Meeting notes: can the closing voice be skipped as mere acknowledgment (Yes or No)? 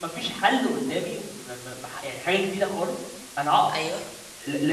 Yes